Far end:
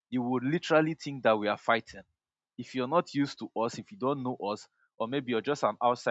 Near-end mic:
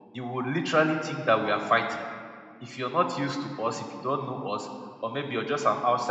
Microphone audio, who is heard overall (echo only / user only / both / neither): echo only